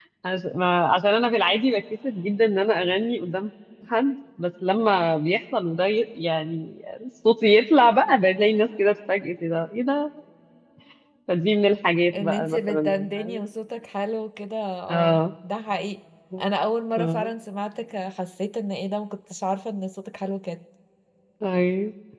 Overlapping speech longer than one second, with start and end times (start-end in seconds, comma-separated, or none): 12.2-13.4